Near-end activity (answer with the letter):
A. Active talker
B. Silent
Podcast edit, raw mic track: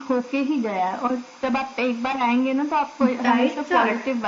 A